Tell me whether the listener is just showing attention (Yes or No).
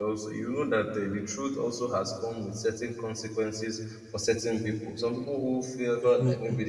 Yes